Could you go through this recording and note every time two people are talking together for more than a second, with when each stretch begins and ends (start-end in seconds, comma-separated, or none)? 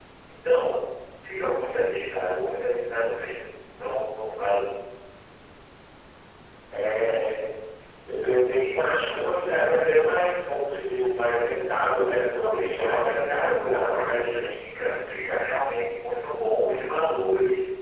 12.4-14.5